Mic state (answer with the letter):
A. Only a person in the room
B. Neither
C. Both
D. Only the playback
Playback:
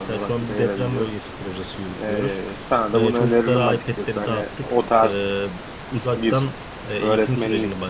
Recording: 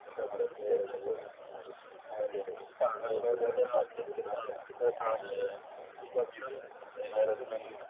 D